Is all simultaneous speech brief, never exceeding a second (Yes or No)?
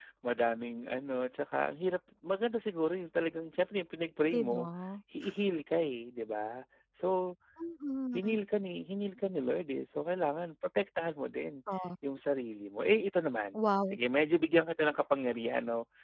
Yes